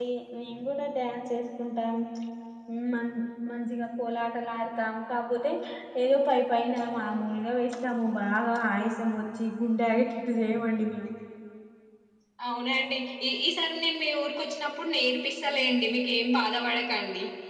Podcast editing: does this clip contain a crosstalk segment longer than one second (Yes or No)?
No